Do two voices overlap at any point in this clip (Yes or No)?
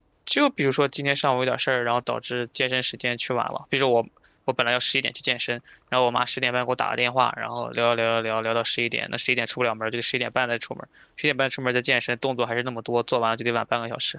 No